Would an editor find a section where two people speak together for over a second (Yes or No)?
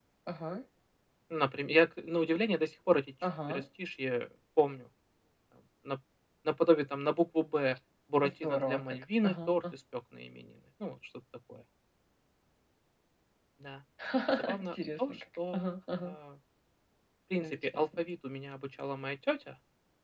Yes